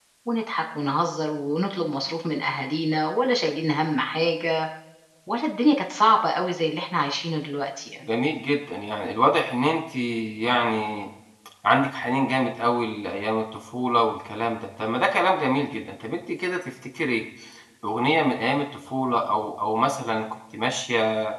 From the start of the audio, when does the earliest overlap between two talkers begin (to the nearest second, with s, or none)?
none